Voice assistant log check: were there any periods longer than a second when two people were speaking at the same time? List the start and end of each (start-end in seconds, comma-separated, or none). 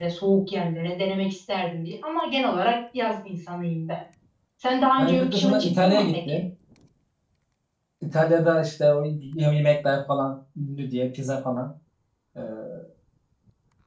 5.0-6.4